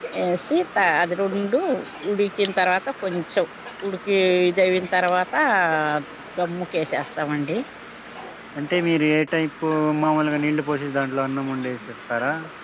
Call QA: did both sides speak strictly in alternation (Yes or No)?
Yes